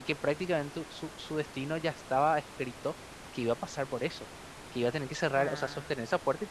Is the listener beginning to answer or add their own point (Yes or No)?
No